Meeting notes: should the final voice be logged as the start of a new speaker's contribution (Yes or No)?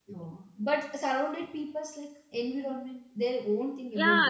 Yes